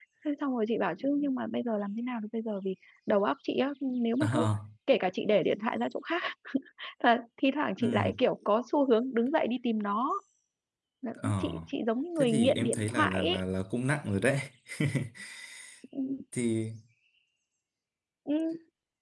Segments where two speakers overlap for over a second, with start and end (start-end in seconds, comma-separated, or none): 12.2-13.4